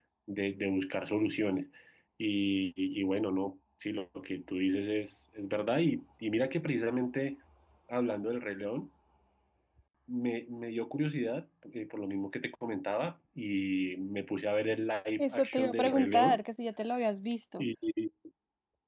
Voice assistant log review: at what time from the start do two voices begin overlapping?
15.2 s

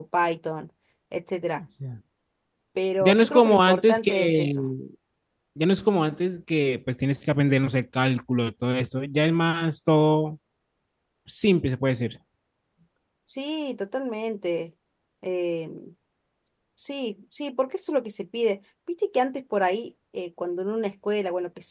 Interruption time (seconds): 3.0 s

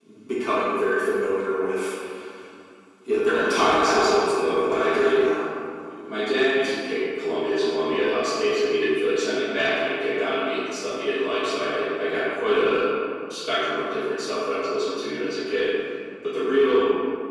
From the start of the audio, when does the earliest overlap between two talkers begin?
3.3 s

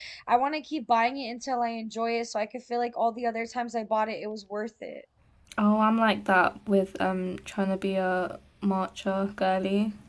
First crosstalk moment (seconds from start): none

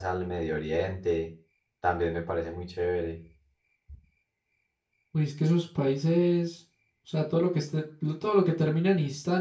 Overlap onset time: none

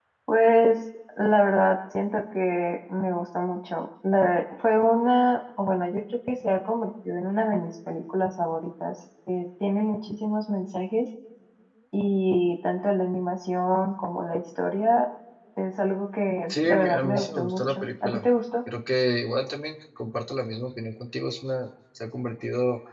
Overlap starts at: 16.6 s

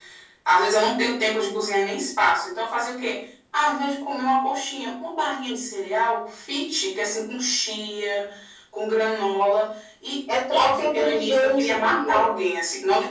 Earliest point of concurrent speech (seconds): 10.3 s

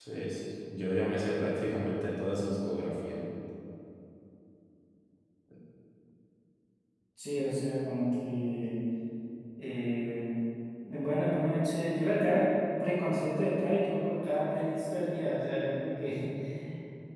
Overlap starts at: none

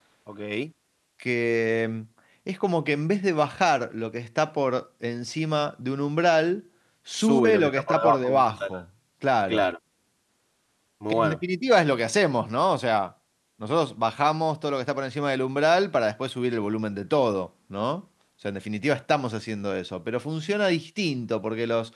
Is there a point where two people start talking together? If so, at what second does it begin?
7.2 s

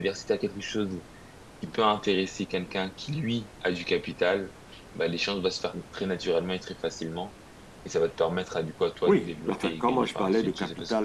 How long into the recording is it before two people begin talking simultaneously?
9.1 s

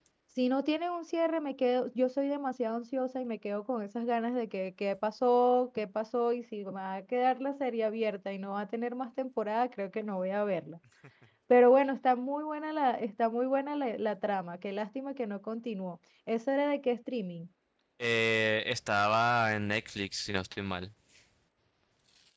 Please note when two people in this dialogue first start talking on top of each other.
none

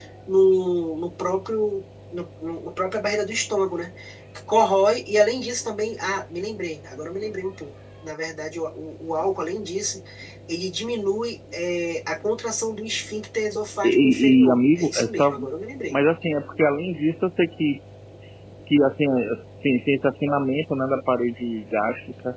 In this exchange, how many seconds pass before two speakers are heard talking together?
13.8 s

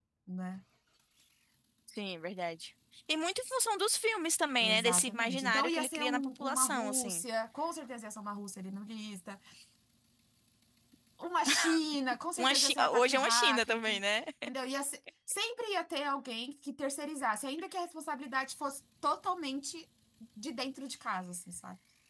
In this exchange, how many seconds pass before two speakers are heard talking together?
4.6 s

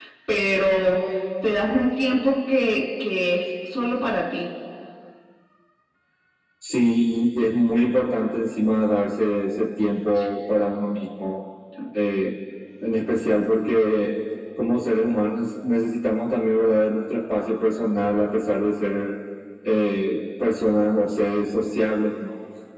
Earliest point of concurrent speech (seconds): none

